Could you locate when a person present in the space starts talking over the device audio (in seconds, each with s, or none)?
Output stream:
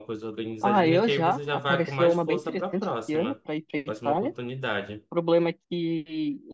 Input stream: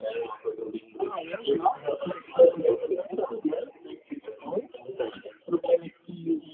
none